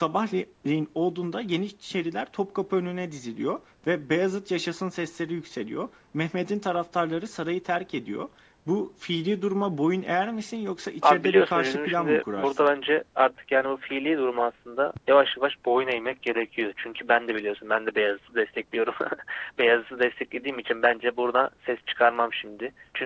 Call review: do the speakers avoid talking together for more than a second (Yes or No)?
No